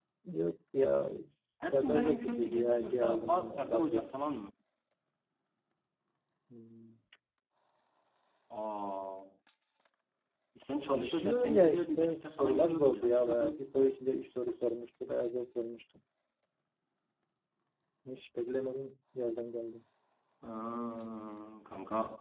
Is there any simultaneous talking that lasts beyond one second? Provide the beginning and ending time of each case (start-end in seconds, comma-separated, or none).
1.6-4.1, 10.8-13.7